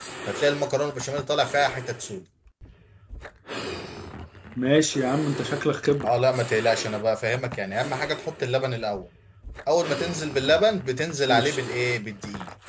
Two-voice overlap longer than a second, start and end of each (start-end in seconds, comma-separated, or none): none